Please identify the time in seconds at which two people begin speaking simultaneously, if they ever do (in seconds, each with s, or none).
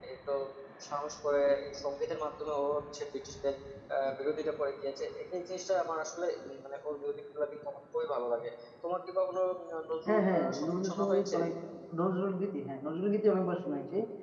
10.1 s